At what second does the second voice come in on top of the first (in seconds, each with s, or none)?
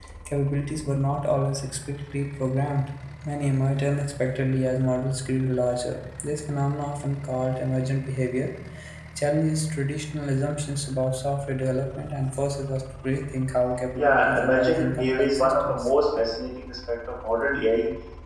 13.9 s